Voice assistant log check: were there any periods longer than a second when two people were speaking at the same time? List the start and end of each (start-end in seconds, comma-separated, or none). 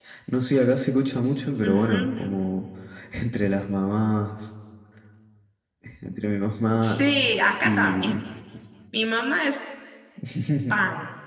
none